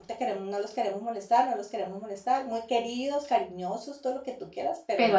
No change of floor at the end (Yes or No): Yes